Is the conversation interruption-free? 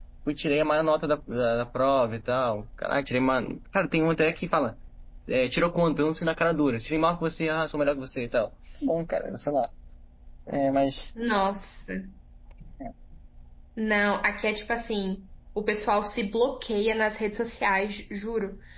Yes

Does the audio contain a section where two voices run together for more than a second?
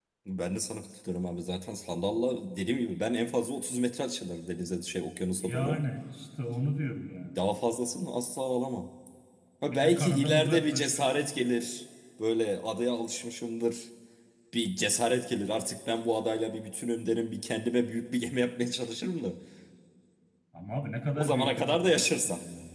Yes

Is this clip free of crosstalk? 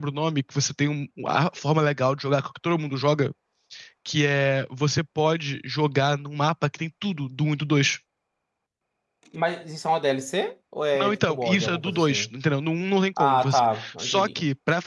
No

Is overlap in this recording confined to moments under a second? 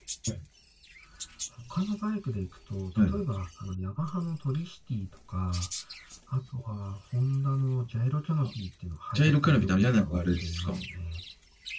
No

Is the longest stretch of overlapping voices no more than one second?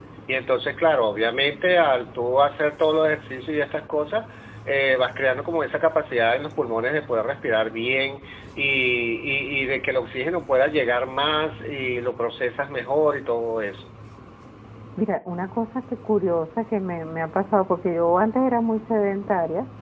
Yes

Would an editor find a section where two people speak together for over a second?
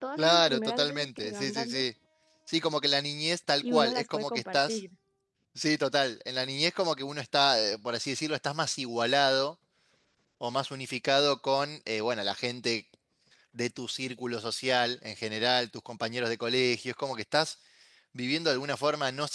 Yes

